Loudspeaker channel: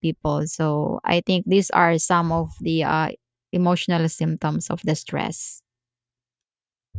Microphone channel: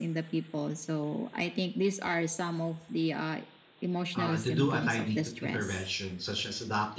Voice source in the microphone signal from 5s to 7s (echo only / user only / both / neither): both